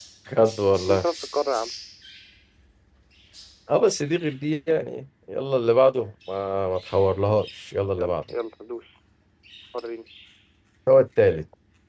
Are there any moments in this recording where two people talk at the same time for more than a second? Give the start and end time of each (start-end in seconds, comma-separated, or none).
none